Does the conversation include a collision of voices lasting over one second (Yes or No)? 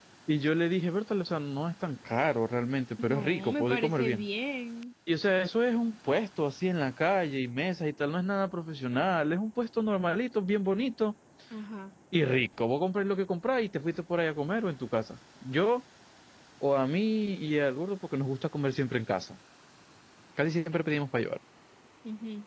Yes